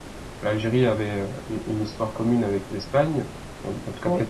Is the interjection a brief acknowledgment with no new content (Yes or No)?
Yes